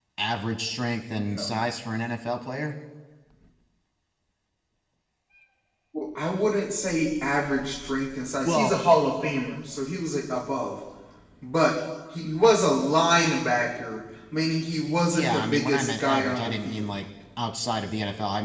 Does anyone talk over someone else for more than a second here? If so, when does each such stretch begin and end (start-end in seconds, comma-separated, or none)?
15.1-17.0